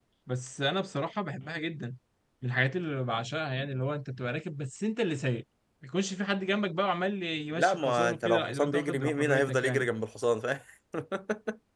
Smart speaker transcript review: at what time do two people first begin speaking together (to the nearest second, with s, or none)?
8 s